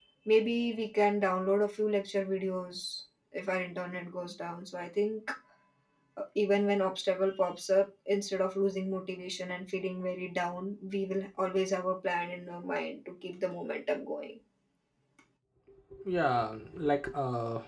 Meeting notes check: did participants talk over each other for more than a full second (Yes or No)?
No